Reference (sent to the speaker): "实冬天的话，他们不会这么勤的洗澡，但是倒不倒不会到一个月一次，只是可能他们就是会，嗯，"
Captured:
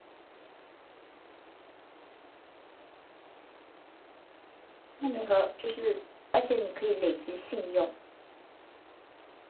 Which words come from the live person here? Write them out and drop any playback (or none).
那你和就是，而且你可以累积信用，